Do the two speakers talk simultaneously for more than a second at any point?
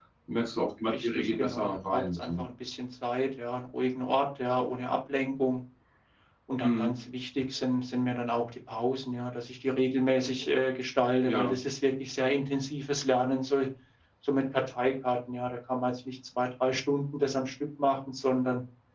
Yes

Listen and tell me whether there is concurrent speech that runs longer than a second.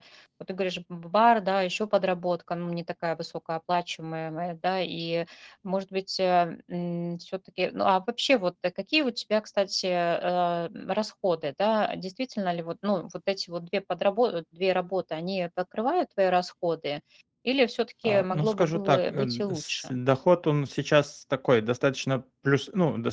Yes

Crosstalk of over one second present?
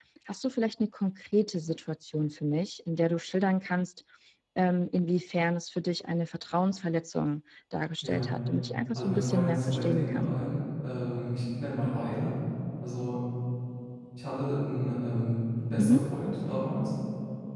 Yes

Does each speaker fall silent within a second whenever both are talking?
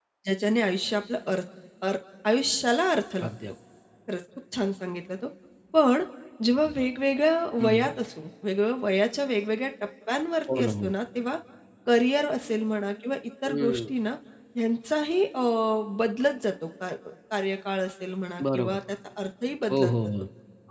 Yes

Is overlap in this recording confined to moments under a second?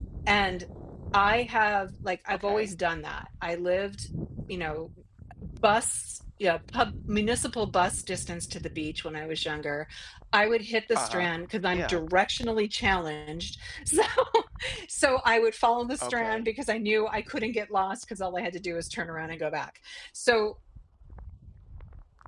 Yes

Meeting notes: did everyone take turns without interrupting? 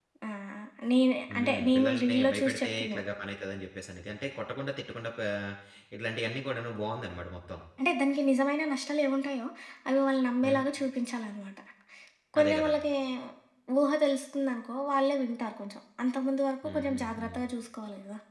No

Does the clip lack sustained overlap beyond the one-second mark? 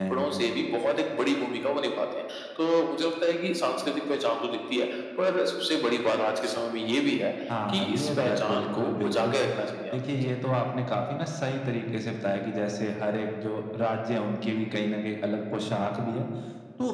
No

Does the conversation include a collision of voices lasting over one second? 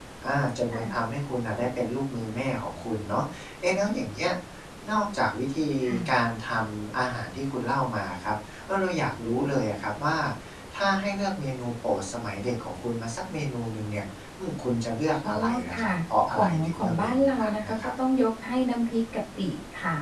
Yes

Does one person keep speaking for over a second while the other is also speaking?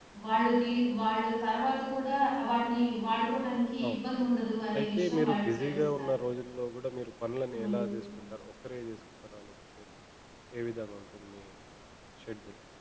Yes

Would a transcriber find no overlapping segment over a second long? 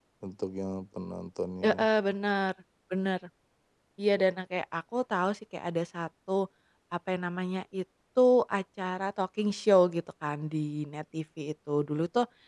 Yes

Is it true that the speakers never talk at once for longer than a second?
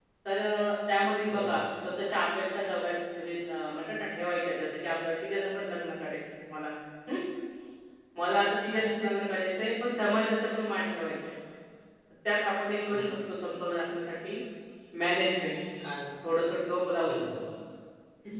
Yes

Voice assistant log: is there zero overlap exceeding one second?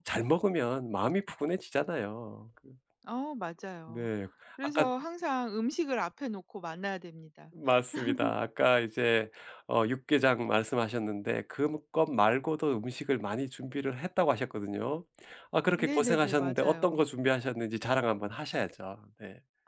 No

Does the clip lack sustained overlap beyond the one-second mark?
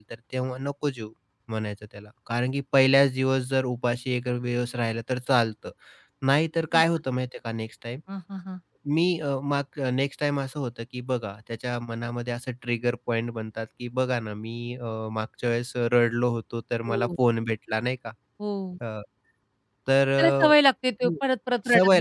Yes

